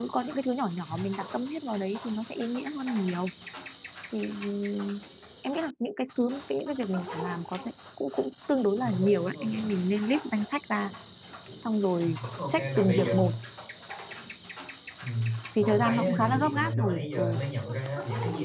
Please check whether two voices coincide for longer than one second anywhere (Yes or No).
Yes